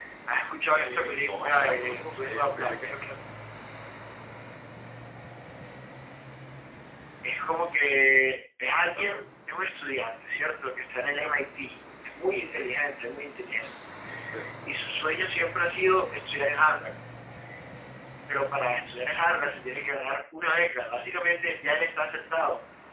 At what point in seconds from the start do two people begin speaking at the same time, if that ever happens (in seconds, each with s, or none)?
0.7 s